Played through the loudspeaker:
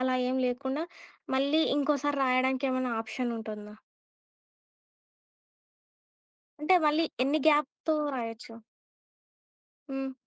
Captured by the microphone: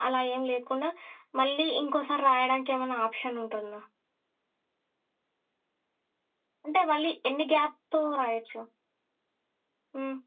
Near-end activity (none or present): none